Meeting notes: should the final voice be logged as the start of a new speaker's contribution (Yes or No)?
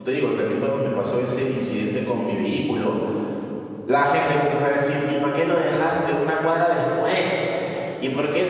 No